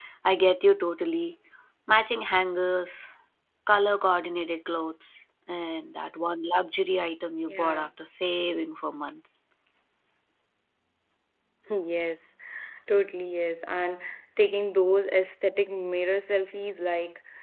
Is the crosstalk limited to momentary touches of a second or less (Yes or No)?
Yes